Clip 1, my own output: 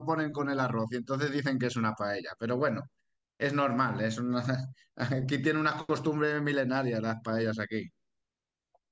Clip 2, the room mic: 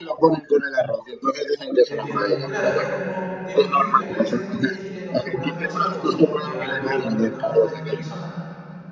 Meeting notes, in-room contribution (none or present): present